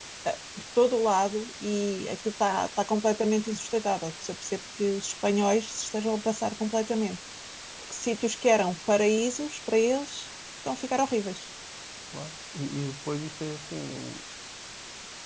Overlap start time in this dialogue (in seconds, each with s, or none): none